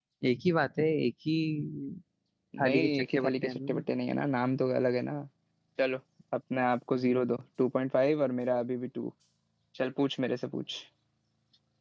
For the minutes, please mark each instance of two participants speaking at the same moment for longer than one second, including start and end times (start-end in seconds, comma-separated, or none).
2.6-3.8